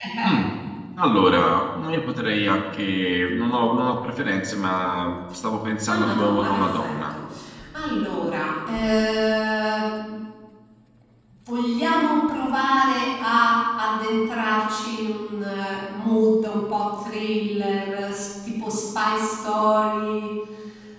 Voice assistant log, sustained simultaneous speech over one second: present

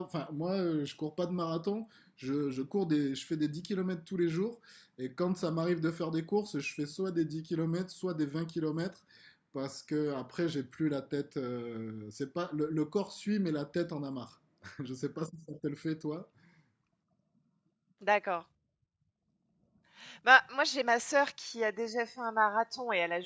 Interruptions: none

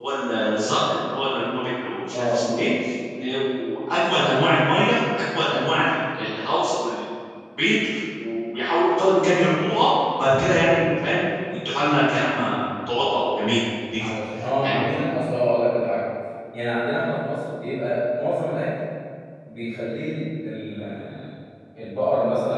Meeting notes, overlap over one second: none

